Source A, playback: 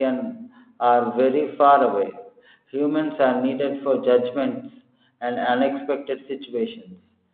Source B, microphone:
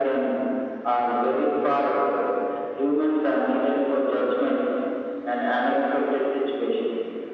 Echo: present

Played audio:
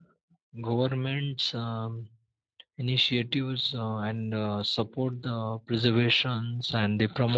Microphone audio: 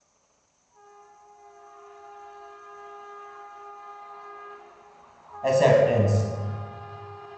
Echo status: none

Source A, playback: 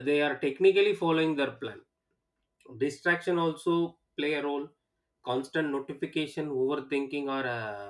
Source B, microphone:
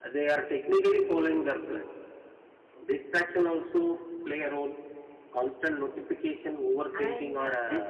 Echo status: present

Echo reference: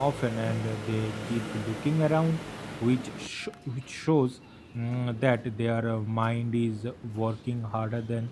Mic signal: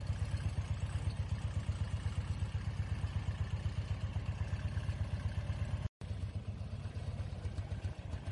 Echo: none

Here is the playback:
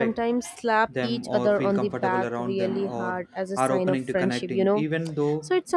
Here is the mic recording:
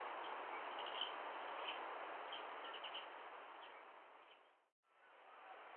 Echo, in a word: none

